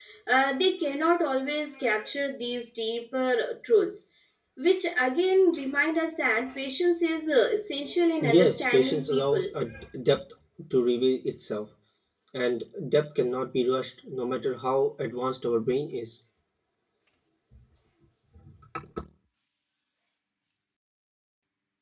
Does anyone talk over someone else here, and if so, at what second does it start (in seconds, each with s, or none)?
8.2 s